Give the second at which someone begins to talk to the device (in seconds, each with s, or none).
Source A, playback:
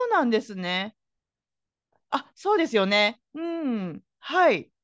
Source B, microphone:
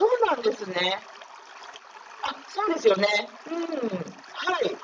none